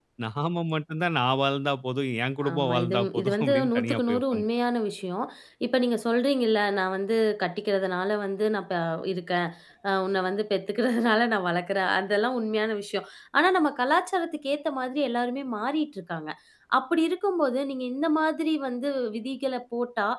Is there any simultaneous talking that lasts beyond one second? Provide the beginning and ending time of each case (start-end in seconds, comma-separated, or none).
2.5-4.4